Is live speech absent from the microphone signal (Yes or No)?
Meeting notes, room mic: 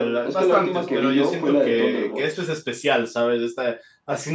No